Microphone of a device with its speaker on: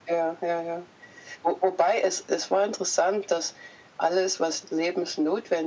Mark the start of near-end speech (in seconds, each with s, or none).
none